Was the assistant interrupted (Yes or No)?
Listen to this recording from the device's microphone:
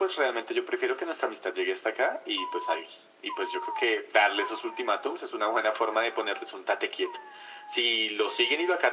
No